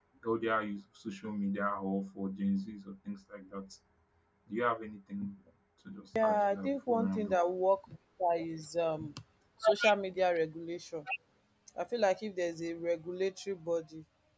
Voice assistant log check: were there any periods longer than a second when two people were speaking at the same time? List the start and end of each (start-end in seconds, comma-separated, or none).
6.2-7.3